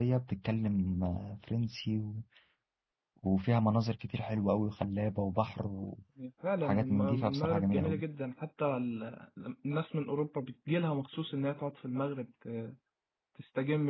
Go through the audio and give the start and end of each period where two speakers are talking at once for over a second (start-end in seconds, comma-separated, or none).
6.6-8.0